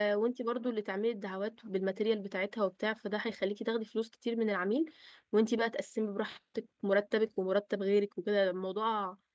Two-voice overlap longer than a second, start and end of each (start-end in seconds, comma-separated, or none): none